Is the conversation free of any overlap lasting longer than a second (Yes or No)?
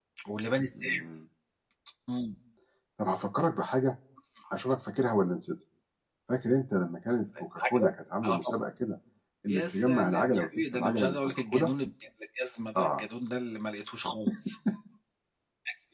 No